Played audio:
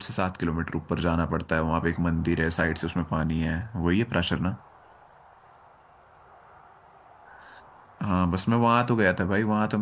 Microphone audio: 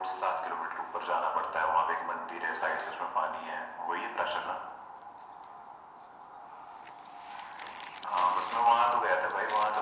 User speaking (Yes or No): No